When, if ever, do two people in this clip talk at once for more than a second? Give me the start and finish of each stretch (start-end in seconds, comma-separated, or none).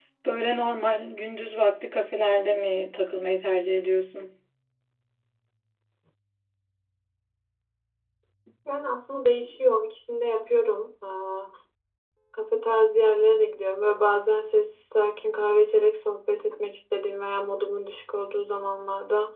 none